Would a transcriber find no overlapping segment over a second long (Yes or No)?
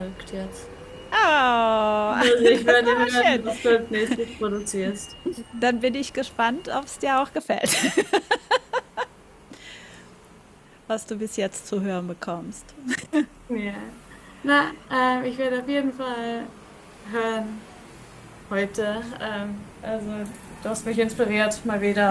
No